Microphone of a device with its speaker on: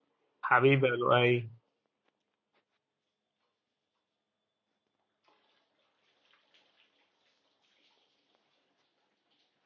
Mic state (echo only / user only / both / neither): user only